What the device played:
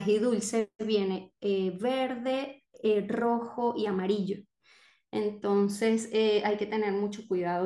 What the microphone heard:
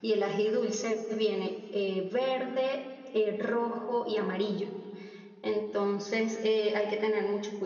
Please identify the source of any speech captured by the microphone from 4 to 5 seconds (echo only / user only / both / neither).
echo only